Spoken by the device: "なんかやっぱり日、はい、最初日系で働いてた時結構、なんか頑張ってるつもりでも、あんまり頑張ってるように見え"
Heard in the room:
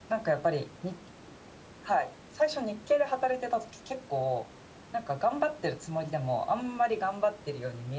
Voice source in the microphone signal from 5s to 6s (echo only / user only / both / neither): echo only